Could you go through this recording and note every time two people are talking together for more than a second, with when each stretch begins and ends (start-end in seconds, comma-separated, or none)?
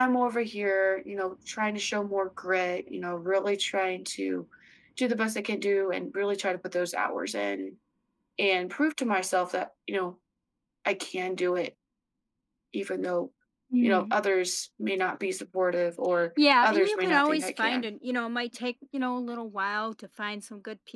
16.4-17.9